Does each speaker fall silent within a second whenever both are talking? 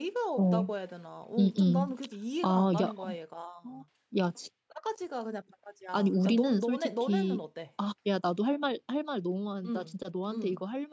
No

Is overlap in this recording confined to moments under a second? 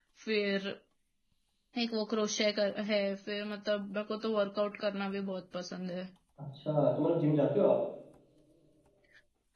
Yes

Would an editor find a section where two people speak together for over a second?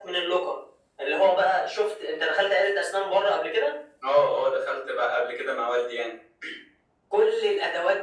No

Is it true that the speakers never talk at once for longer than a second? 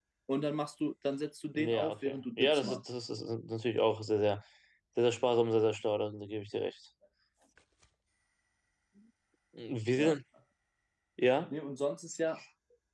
No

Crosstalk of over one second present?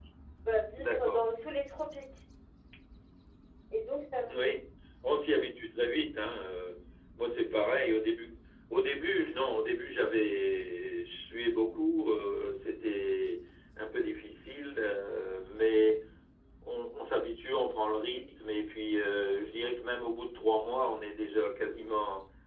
No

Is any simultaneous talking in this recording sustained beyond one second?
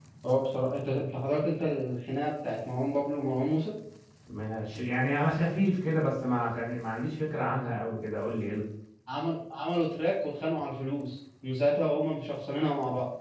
No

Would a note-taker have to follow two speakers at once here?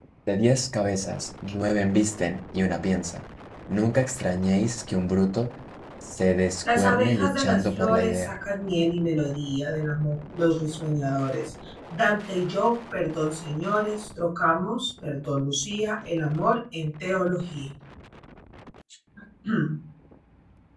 Yes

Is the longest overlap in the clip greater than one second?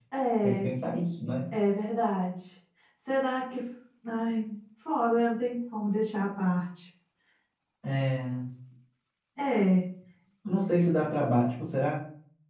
No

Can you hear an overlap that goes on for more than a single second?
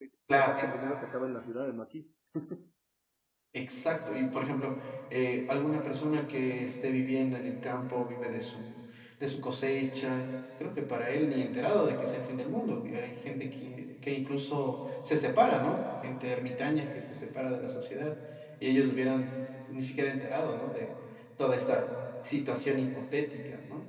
No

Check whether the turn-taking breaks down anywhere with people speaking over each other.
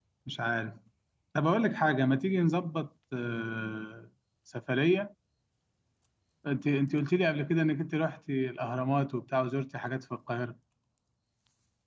No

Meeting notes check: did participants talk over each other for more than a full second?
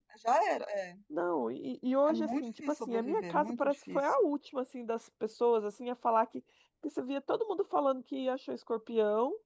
Yes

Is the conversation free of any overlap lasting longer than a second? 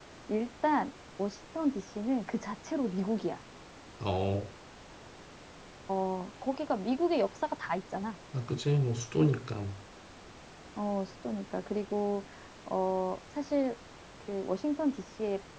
Yes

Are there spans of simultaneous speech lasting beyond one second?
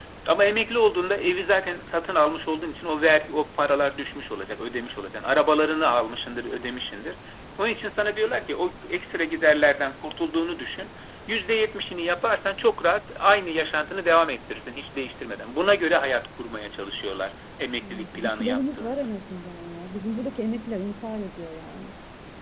Yes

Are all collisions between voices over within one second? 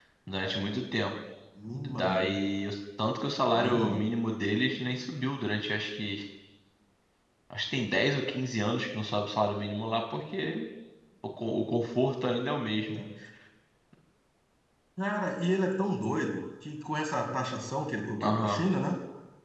Yes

